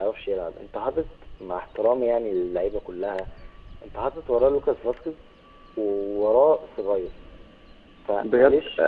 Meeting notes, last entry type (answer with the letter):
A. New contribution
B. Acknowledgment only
A